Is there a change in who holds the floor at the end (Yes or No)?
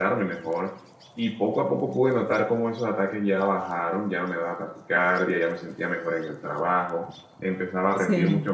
No